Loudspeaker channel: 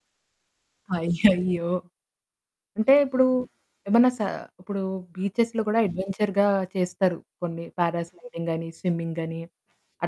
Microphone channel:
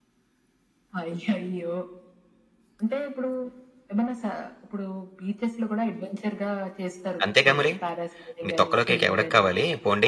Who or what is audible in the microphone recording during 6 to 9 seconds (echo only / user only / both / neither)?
both